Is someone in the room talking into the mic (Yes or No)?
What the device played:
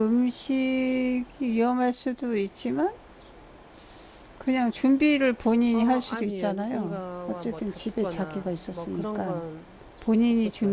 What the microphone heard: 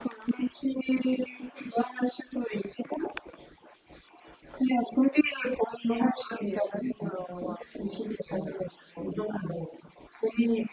No